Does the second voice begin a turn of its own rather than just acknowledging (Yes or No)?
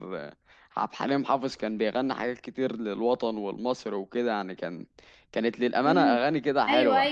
Yes